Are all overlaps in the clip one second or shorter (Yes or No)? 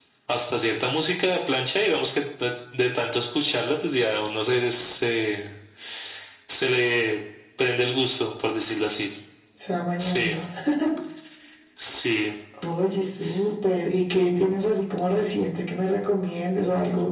Yes